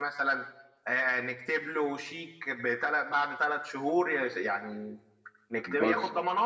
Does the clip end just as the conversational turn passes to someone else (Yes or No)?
No